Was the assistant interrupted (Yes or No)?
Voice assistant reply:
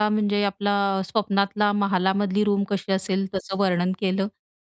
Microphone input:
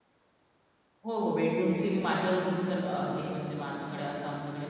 Yes